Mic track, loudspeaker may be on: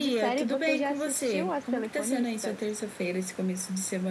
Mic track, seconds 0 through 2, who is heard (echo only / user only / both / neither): both